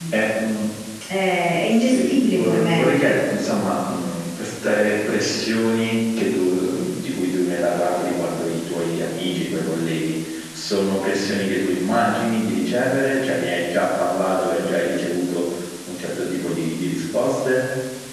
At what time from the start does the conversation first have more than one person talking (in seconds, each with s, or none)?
1.7 s